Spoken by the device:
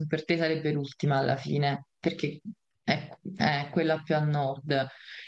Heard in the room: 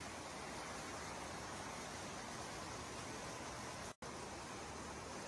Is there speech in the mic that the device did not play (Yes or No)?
No